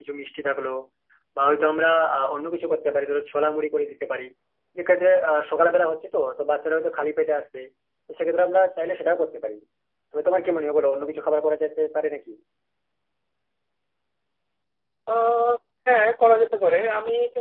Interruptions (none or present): none